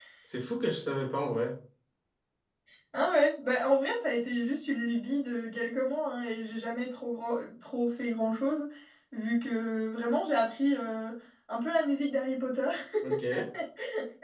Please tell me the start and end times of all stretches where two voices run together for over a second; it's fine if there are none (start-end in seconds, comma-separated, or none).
none